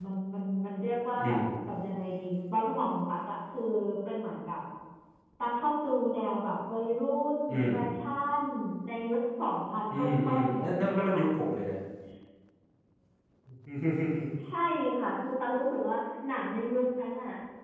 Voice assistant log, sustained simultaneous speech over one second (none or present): present